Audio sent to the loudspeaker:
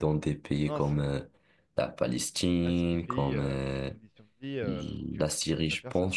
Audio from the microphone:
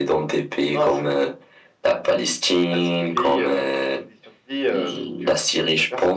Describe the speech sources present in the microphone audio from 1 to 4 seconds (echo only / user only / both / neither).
echo only